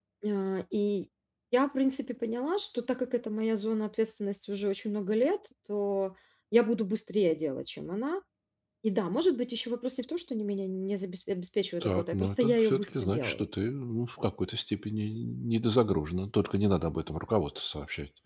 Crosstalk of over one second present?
Yes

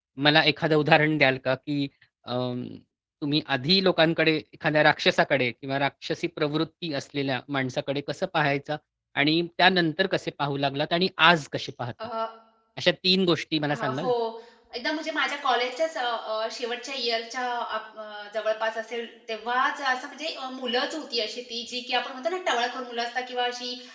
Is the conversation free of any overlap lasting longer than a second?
Yes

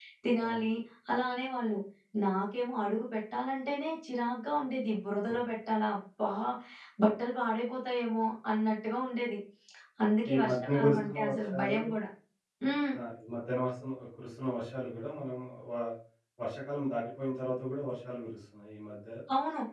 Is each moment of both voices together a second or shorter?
No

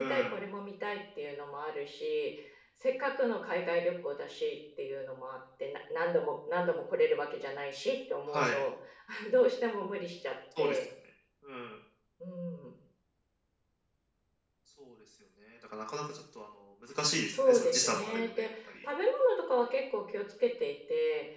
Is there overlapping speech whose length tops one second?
Yes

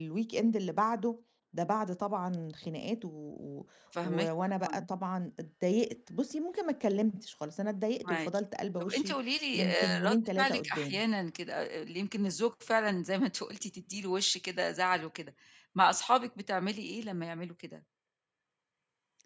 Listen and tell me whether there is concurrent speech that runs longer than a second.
Yes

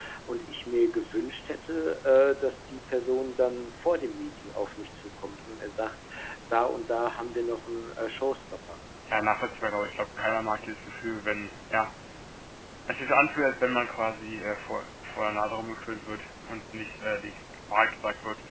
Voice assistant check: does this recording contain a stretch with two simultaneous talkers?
No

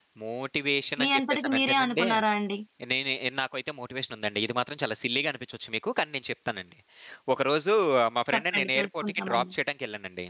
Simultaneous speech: Yes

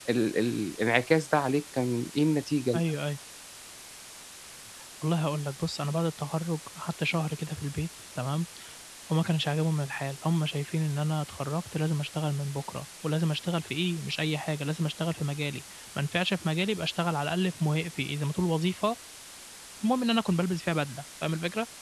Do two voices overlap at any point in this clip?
No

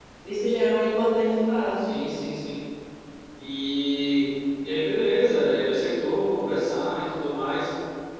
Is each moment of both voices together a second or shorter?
Yes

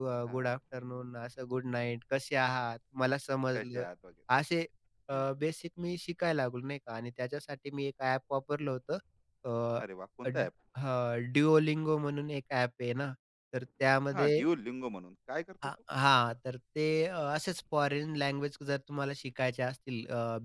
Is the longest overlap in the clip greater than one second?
No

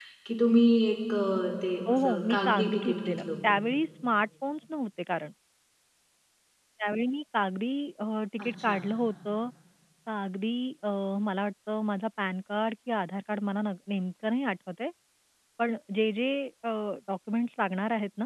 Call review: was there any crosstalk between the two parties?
Yes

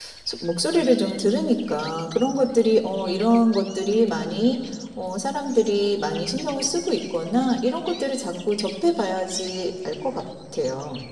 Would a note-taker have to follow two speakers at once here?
No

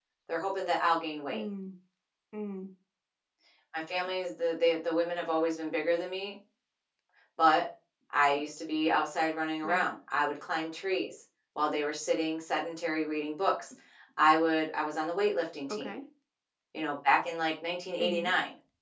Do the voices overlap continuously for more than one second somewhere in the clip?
No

